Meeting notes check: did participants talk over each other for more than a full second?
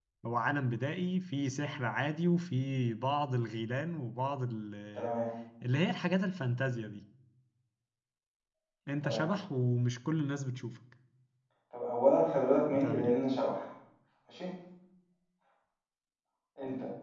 No

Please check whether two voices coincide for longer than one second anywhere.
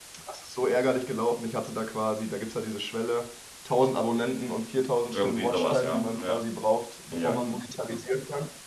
Yes, from 5.1 s

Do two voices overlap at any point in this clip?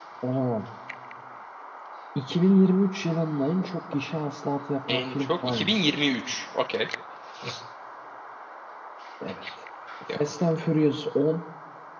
Yes, from 4.9 s

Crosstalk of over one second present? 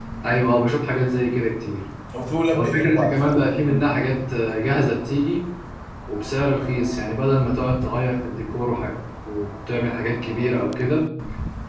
Yes, from 2.5 s

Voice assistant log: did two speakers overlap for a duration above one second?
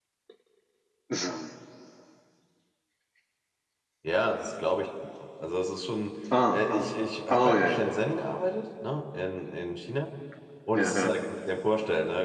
No

